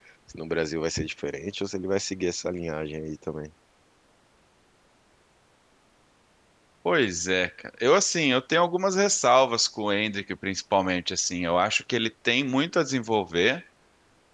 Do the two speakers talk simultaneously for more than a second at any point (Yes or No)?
No